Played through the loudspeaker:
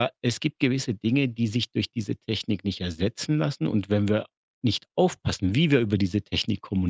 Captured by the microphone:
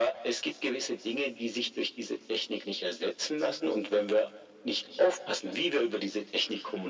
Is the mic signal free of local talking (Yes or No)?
Yes